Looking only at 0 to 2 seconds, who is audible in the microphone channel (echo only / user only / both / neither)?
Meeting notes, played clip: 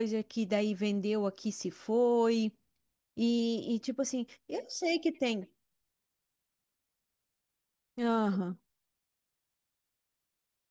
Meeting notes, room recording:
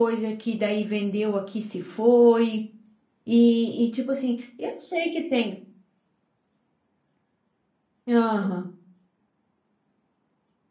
echo only